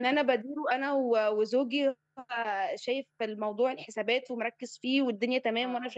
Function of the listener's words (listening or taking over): listening